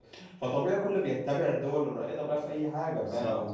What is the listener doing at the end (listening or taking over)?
listening